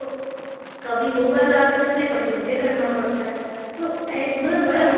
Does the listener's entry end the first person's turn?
No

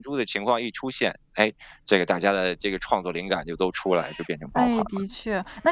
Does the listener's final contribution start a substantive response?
Yes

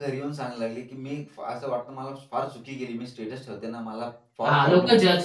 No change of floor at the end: No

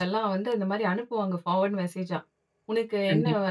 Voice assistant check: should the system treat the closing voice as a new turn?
No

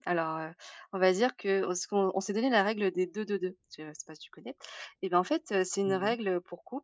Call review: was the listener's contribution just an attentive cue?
Yes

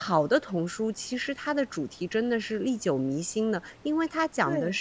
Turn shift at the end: No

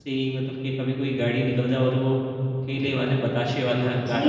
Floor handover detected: Yes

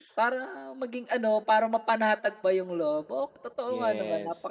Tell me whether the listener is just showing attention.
No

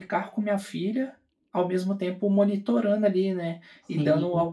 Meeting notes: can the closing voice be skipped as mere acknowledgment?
Yes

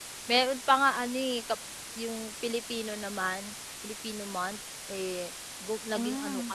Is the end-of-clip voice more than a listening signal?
No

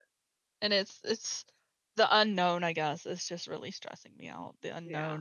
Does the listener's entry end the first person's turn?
No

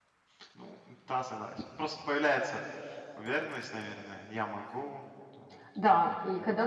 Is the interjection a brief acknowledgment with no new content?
No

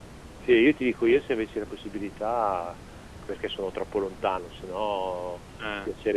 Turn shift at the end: No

